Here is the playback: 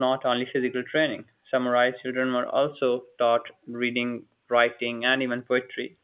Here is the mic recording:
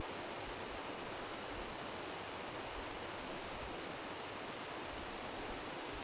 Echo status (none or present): none